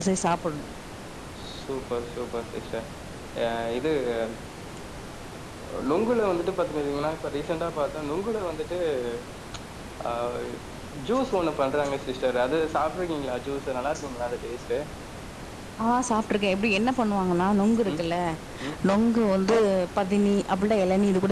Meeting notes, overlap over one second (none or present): none